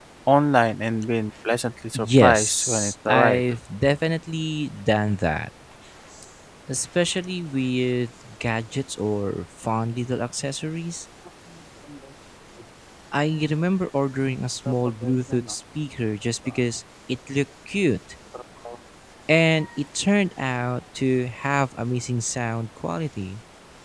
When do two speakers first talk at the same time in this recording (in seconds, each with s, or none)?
1.9 s